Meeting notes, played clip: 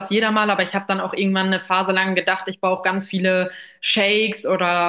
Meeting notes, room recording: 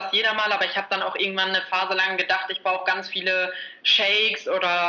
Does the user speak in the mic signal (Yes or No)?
No